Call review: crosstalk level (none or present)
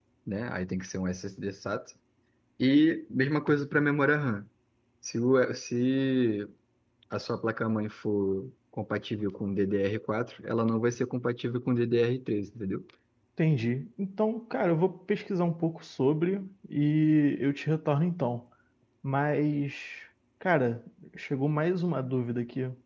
none